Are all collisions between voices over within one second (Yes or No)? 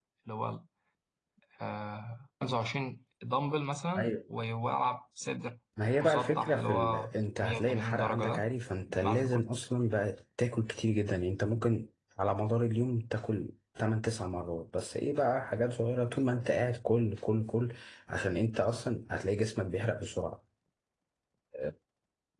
No